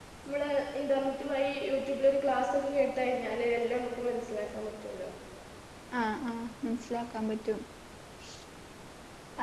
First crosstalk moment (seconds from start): none

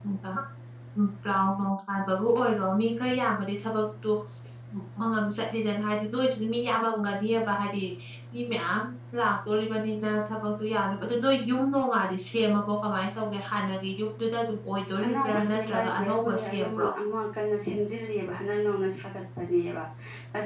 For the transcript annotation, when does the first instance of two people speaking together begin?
15.0 s

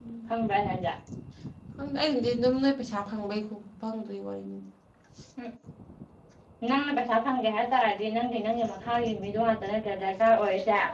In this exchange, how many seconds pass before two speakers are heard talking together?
none

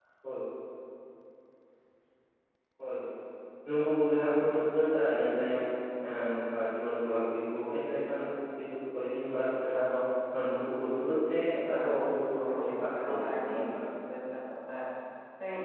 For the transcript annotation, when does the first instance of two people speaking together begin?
11.7 s

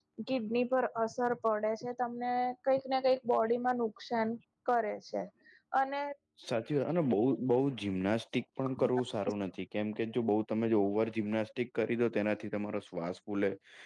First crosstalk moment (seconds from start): none

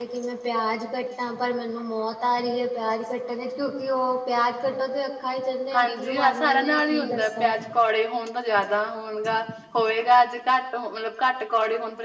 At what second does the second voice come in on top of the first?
5.7 s

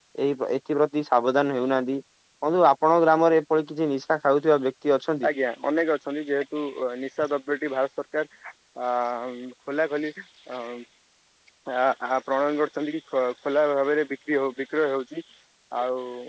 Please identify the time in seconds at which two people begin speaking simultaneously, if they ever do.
none

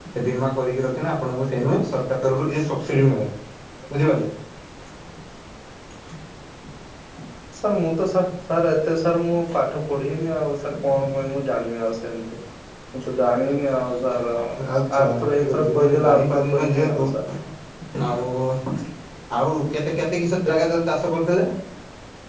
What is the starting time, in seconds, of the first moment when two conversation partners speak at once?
15.0 s

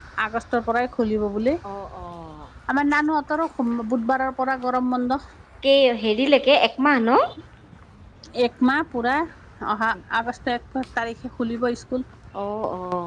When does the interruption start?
none

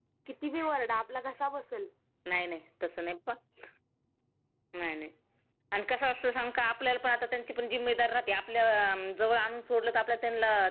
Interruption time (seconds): none

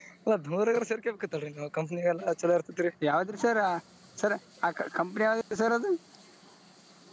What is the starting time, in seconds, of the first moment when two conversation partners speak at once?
none

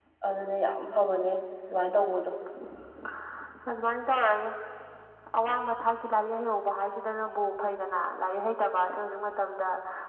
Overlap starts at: none

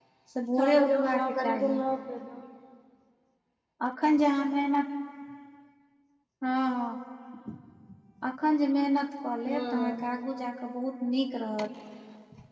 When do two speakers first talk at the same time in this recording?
0.6 s

